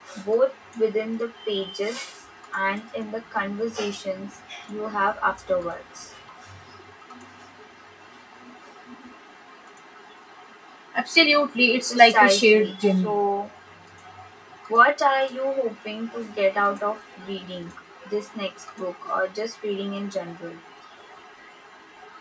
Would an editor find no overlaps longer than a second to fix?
No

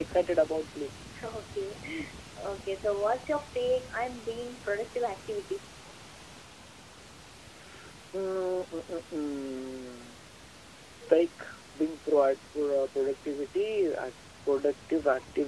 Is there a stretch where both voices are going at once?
No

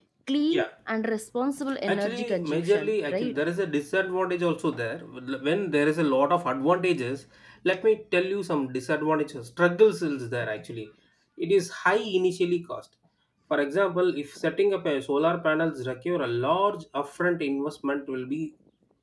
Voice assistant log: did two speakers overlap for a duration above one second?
Yes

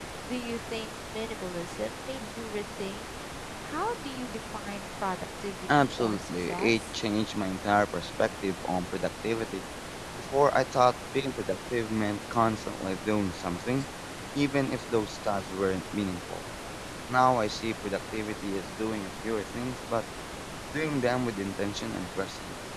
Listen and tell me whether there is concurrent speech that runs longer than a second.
Yes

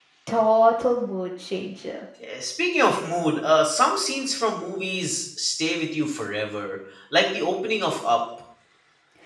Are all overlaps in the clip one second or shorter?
Yes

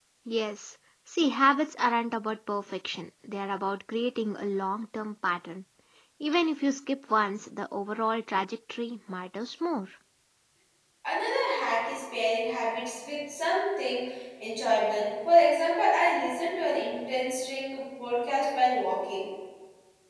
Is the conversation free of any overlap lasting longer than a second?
Yes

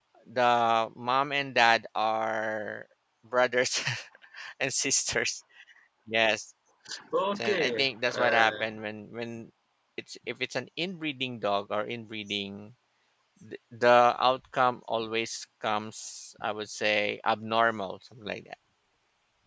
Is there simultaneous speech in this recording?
Yes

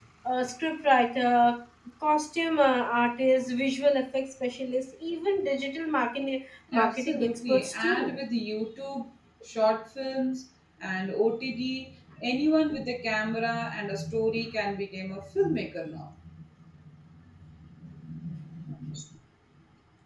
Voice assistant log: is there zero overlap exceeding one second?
No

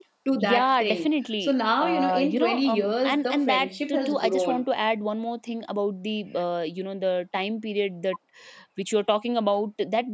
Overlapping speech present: Yes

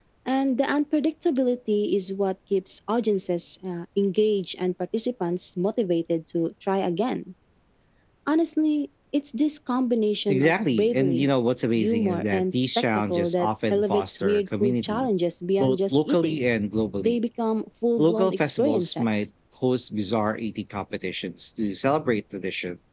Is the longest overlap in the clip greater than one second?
Yes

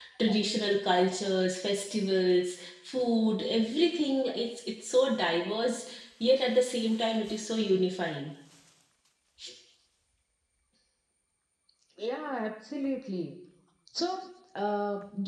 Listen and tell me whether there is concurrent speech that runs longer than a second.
No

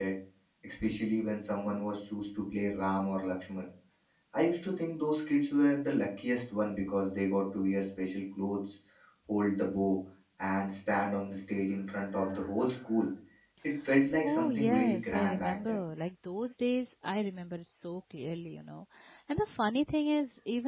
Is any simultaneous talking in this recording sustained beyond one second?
Yes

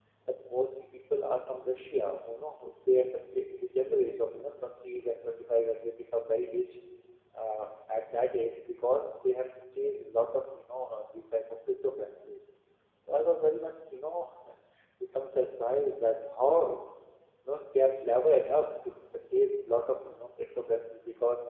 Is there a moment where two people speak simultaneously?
No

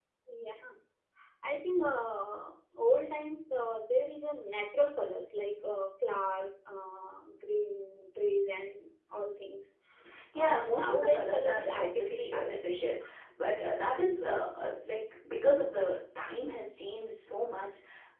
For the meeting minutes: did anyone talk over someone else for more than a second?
Yes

